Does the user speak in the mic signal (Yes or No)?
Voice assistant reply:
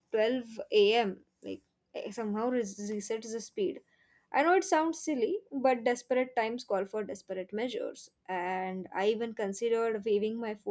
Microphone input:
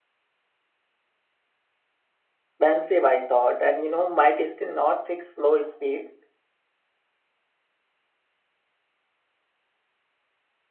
Yes